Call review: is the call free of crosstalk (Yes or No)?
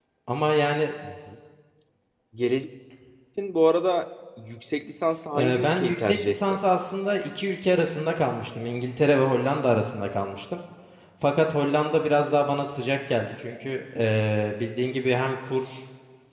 No